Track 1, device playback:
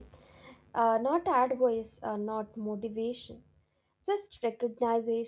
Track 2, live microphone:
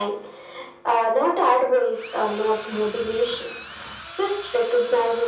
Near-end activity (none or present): none